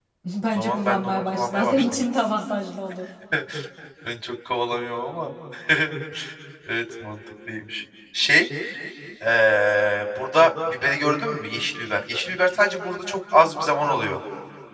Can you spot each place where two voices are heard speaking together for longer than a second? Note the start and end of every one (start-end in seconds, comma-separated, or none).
0.6-1.8